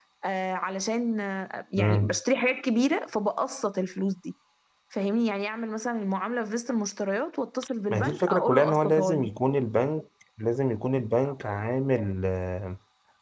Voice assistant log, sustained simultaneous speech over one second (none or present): present